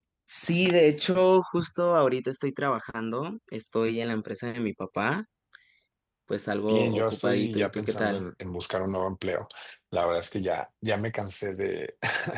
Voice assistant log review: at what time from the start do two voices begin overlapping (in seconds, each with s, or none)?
6.7 s